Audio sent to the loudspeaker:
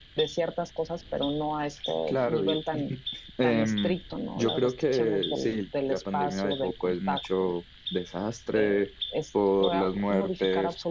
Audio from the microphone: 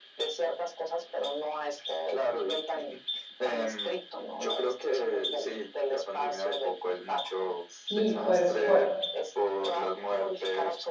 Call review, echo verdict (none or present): present